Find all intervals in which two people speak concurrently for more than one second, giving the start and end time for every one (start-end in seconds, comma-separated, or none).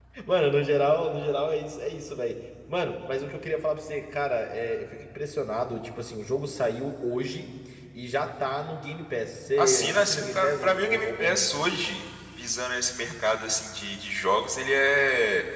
9.6-11.5